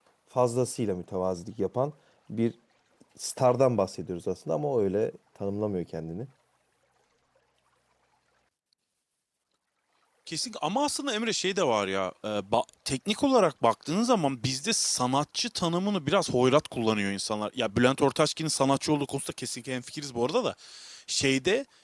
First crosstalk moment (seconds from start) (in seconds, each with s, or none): none